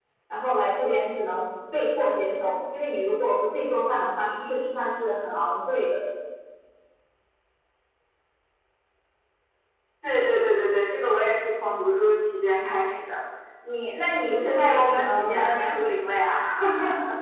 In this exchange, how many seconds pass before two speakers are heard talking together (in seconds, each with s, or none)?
14.3 s